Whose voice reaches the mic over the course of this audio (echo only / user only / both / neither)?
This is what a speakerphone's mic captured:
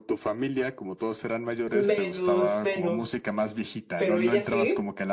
both